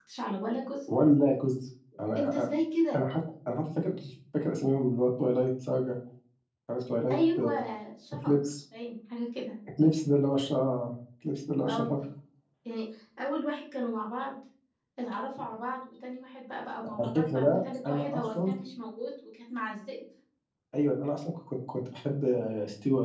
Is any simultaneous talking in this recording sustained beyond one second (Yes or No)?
Yes